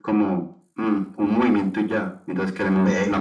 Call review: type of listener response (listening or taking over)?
listening